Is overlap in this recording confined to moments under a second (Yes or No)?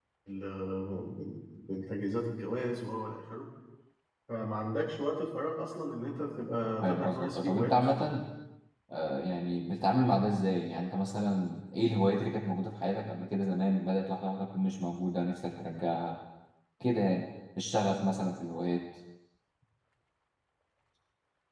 No